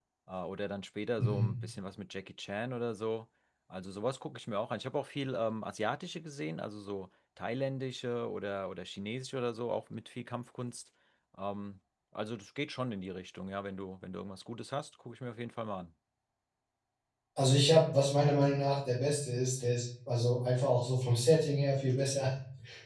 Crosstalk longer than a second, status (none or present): none